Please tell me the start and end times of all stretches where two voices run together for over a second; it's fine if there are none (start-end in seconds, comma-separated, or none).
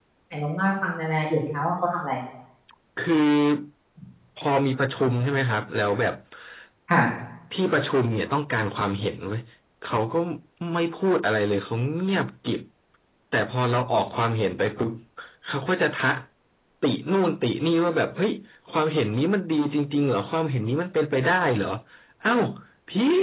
none